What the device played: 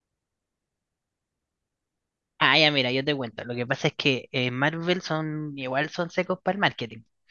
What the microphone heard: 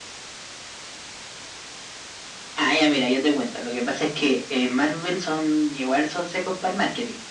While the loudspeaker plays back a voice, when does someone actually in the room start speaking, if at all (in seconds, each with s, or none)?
none